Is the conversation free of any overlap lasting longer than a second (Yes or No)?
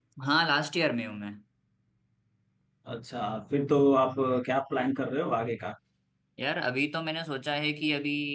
Yes